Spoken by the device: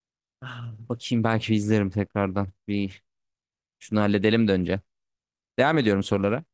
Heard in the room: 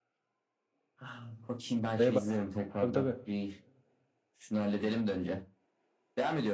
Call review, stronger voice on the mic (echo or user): user